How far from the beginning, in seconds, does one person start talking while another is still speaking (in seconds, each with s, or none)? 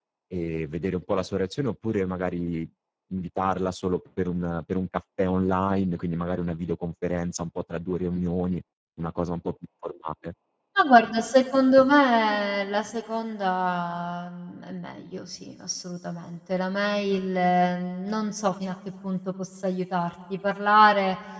none